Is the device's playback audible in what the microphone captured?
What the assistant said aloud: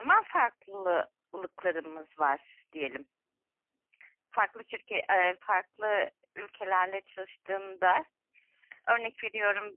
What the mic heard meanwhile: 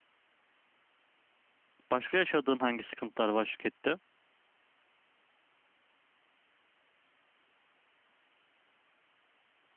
No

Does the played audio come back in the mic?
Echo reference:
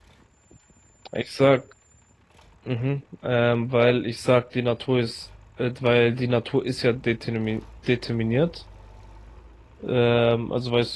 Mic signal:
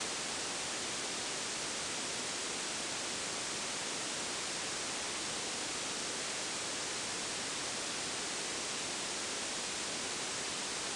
No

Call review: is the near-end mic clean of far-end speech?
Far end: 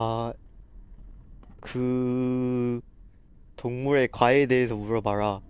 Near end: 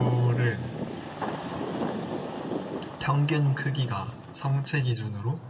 Yes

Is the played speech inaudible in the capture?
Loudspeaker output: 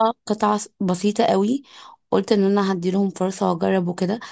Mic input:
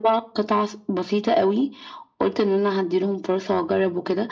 No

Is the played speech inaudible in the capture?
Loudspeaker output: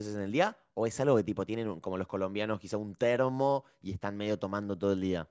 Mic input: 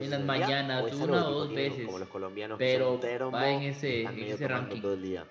No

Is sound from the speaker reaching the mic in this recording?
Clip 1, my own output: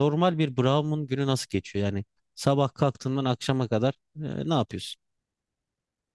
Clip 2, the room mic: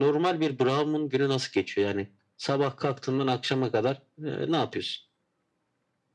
Yes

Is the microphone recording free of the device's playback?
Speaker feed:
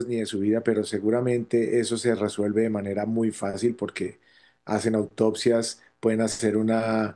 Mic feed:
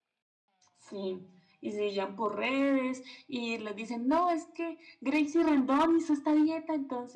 Yes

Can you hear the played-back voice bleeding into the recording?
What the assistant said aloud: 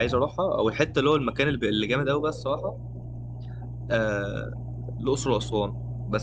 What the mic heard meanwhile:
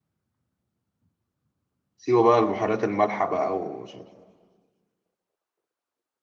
No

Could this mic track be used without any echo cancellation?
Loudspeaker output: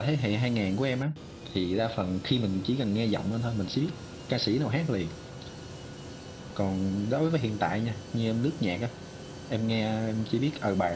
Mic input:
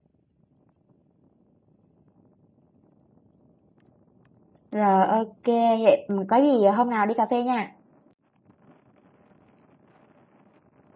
Yes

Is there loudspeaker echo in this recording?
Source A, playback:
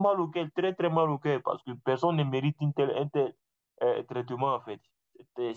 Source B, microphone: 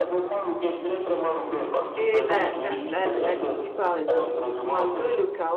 Yes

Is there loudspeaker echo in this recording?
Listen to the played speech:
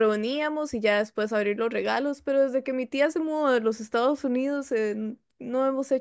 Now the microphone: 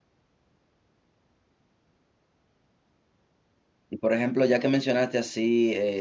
No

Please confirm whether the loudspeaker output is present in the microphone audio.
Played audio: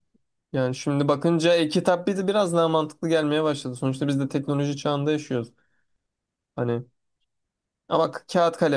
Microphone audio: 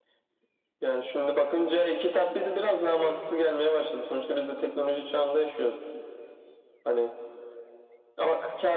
Yes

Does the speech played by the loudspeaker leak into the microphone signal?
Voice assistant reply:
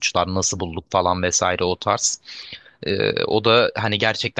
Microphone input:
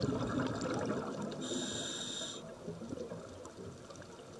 No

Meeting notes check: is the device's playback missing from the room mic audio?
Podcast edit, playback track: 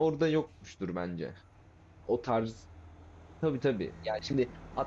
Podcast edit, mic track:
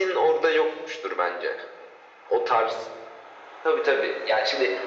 No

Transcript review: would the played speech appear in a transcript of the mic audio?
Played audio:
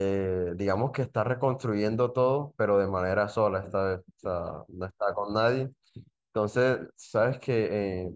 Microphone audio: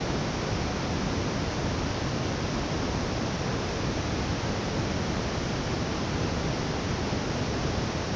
No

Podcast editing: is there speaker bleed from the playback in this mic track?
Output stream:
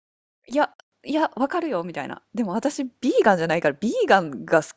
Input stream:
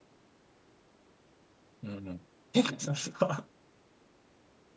No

